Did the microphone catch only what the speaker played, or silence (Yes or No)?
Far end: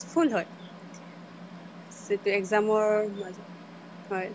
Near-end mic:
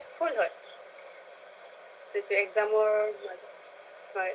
Yes